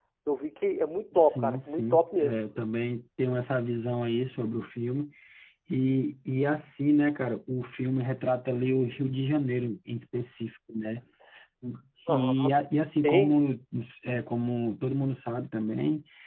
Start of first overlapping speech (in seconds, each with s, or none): 1.1 s